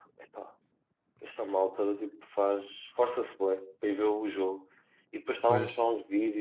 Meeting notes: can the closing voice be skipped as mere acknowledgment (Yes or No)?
Yes